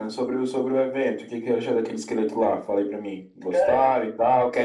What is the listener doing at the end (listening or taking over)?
listening